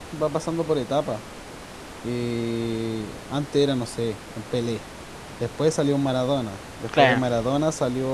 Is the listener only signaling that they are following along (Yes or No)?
Yes